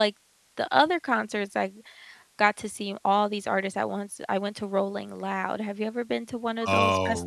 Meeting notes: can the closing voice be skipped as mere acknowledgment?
No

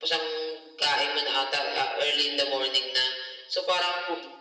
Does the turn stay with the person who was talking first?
Yes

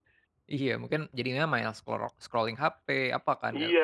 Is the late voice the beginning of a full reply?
Yes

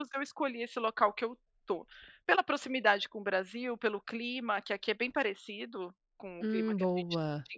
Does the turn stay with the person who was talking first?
Yes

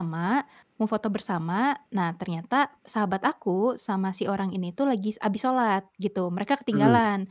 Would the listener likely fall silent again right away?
Yes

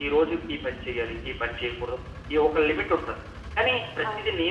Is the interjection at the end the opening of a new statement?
No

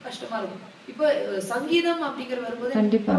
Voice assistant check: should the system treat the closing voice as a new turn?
No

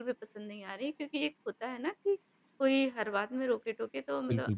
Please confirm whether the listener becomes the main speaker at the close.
No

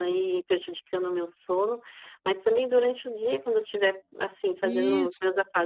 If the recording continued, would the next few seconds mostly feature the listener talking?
No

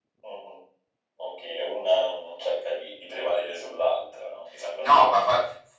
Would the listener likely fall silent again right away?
No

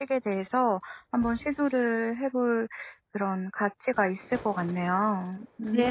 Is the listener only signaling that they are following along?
No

